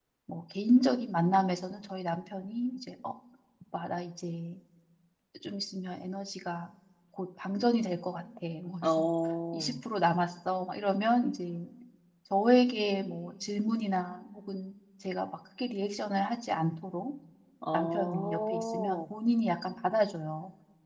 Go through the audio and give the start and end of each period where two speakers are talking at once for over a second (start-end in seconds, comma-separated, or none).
17.7-19.0